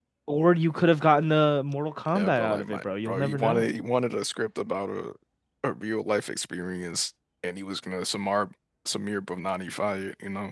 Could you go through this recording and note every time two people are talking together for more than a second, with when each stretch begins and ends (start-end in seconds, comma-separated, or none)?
2.1-3.7